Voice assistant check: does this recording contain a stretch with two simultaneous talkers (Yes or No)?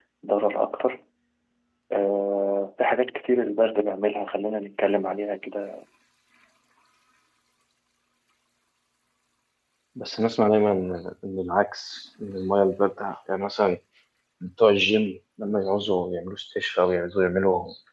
No